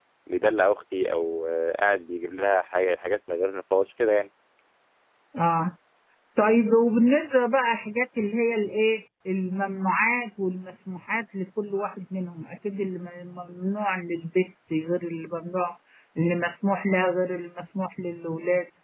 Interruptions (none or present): none